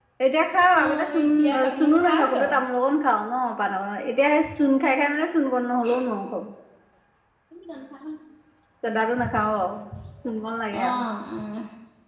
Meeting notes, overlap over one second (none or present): present